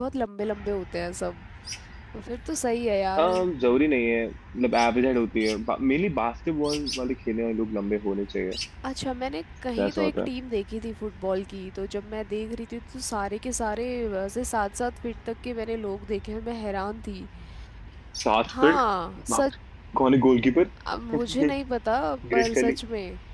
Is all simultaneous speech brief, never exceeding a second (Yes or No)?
Yes